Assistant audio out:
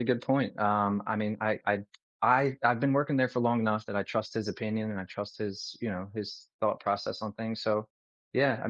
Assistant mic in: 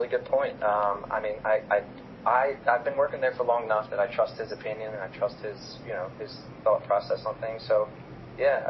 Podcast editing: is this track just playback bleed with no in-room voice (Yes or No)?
Yes